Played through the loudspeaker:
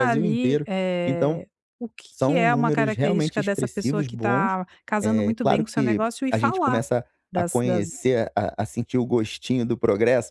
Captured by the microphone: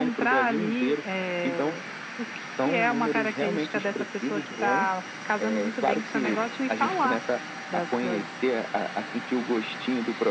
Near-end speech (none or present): none